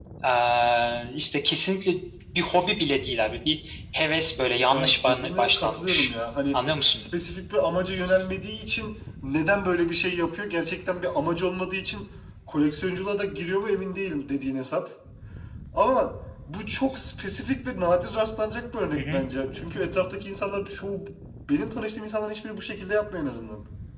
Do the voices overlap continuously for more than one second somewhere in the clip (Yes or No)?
Yes